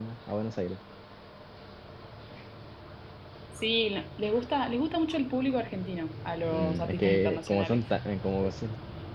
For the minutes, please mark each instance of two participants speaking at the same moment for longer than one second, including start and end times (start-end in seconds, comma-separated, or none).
6.4-7.8